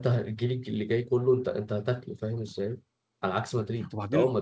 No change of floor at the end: Yes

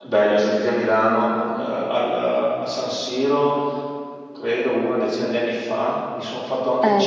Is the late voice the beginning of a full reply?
No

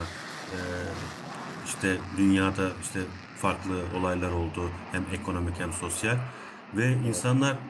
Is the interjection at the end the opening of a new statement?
No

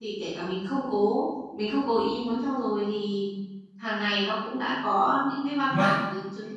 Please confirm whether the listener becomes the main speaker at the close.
No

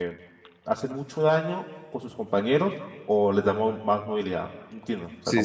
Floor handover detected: Yes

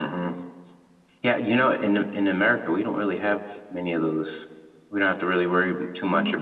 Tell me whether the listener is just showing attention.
No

